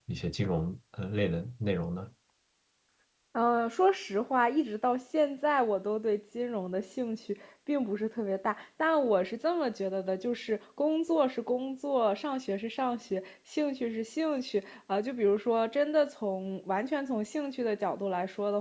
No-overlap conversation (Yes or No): Yes